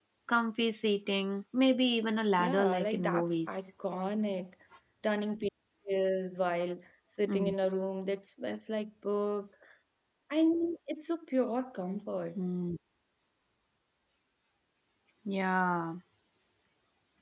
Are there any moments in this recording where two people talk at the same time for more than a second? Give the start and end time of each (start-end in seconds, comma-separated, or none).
2.4-3.7